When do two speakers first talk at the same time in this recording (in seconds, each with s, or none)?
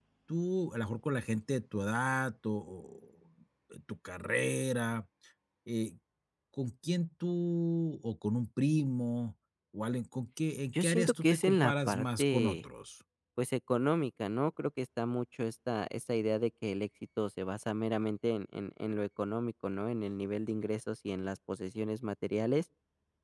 10.7 s